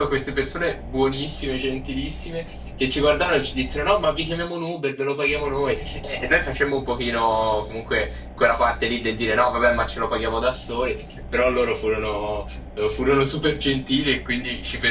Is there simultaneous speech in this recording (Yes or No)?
No